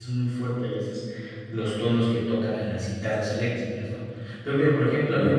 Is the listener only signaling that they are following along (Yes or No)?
Yes